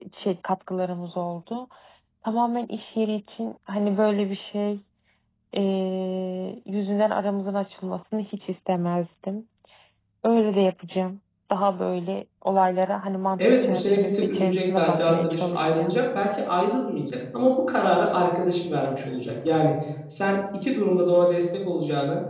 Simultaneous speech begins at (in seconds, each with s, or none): 13.4 s